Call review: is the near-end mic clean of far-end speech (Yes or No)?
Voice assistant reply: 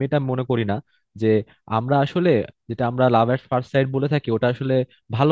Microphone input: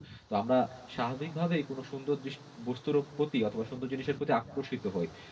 Yes